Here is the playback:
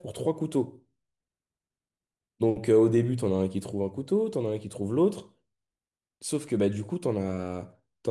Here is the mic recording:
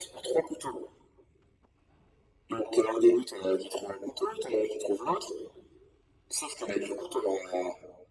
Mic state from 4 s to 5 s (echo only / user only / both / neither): echo only